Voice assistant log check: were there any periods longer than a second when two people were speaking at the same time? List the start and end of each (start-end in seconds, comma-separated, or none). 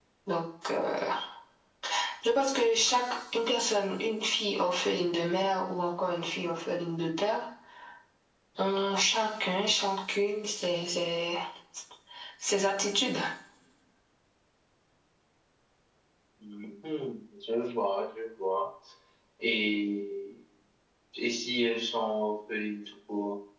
none